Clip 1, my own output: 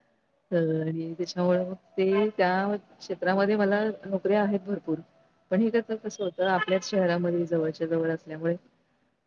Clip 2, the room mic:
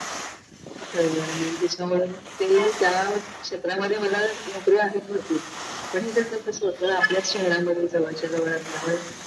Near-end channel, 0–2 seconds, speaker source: echo only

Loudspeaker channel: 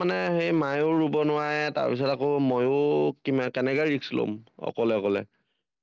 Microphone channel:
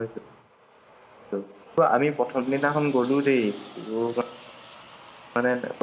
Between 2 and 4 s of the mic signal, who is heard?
user only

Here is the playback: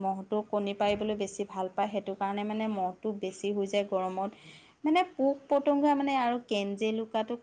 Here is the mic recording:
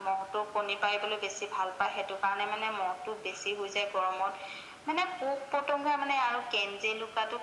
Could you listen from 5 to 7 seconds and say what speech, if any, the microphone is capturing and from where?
echo only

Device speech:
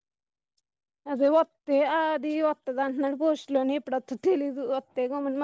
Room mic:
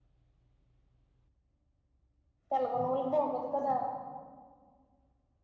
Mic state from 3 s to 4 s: user only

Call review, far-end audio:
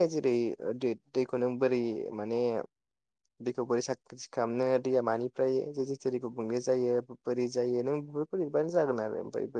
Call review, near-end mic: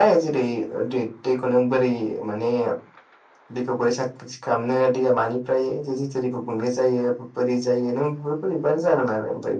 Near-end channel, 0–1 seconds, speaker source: echo only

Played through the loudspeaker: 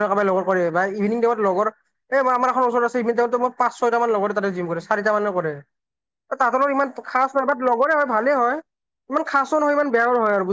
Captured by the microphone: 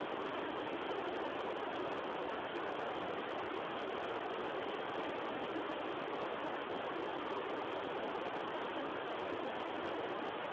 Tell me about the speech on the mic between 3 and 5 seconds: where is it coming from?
neither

